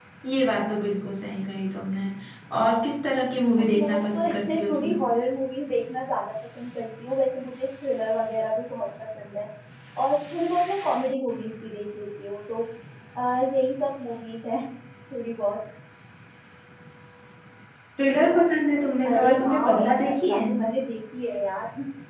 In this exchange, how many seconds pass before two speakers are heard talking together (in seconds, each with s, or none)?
3.6 s